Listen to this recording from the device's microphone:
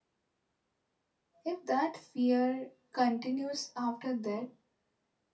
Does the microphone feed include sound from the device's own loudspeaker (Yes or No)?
No